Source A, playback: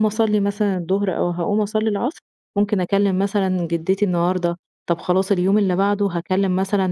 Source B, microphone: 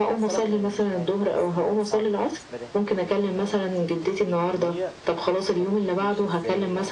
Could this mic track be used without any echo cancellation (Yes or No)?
No